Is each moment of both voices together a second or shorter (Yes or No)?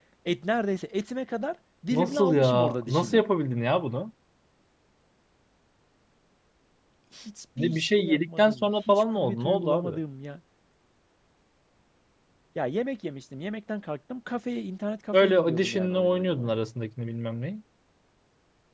No